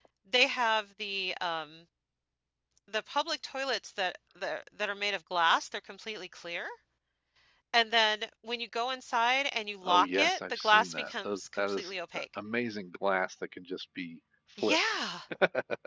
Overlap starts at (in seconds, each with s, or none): 9.8 s